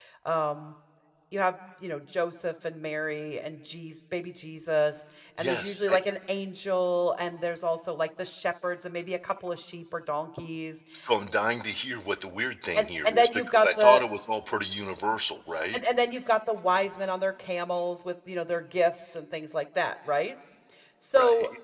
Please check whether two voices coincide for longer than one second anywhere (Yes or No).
Yes